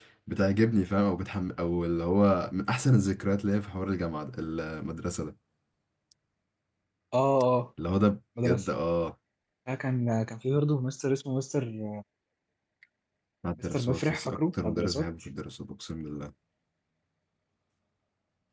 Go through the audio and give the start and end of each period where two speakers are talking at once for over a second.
13.6-15.1

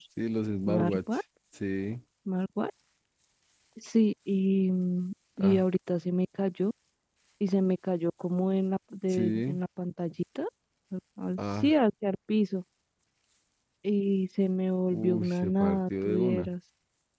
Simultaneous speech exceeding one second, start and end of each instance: 14.9-16.5

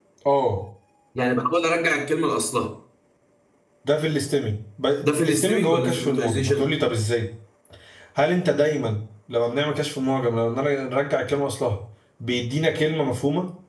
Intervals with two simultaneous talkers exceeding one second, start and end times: 5.2-6.7

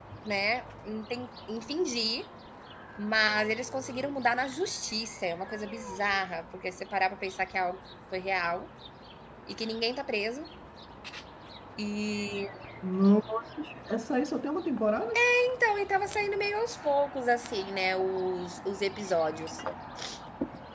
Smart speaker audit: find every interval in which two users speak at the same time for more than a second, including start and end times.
none

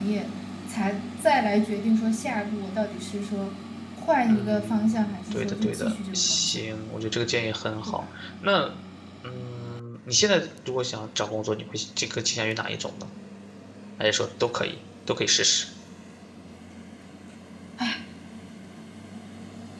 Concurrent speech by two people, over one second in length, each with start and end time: 4.3-6.7

